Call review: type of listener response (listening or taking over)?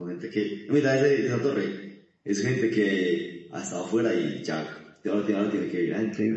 taking over